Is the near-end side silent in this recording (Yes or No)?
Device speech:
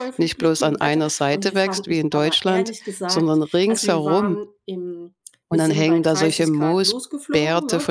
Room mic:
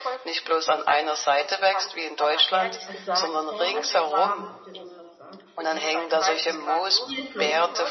No